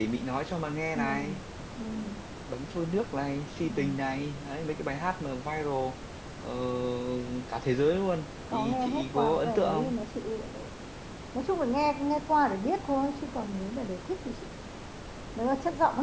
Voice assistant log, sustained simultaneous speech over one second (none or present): present